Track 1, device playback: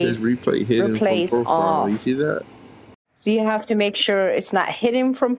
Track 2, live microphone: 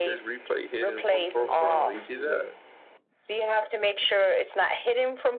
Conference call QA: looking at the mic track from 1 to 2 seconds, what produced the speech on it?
both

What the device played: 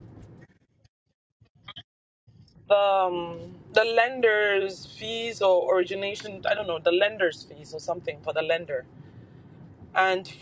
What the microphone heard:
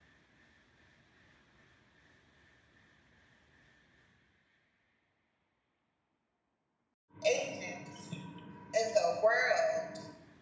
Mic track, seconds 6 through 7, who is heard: neither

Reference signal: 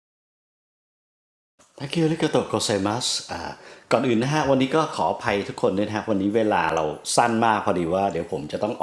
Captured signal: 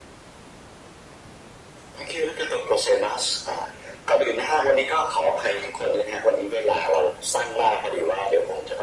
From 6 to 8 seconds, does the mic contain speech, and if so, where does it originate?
echo only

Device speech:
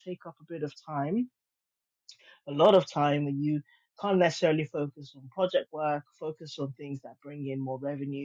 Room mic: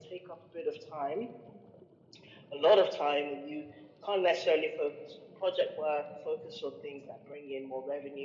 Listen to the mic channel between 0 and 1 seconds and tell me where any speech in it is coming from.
echo only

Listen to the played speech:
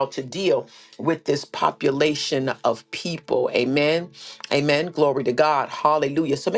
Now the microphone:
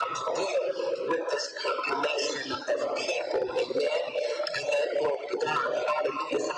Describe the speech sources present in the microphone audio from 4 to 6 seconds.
echo only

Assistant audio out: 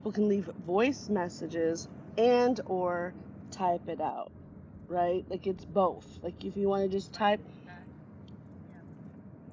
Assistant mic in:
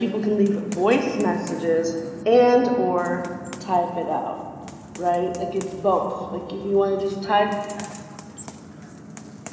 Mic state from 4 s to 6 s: echo only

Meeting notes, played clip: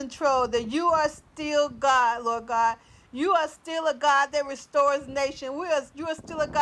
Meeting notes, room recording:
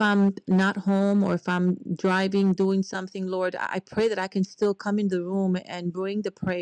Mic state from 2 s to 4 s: user only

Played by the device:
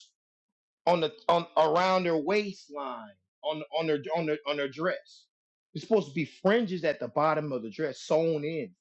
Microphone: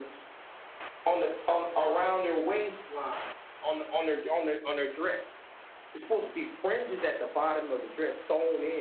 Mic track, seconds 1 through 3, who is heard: echo only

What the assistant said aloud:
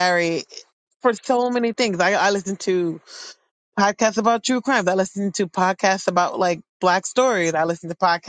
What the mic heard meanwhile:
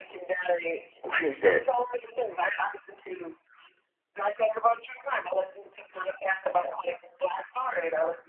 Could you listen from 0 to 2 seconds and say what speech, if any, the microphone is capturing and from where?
both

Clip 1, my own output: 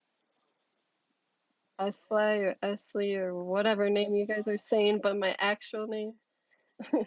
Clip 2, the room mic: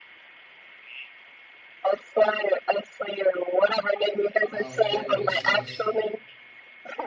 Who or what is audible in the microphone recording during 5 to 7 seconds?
both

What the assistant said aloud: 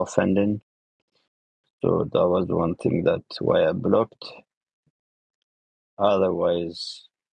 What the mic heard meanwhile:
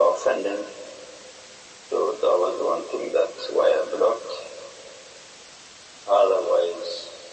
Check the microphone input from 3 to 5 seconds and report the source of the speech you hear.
echo only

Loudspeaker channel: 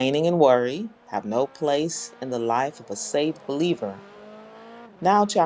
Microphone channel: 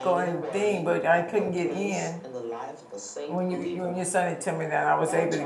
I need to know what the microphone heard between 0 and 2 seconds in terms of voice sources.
both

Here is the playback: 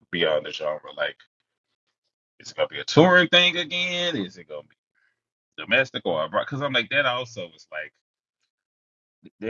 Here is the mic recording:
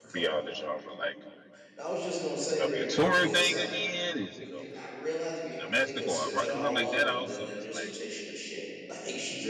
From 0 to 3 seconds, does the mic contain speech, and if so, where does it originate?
both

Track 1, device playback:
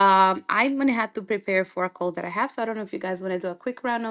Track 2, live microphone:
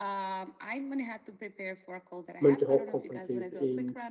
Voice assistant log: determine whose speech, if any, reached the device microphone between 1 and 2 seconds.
echo only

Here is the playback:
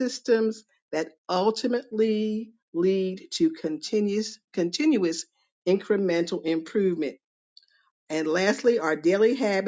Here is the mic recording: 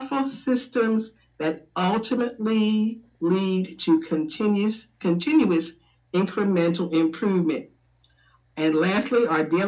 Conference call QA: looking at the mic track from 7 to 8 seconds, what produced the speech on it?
echo only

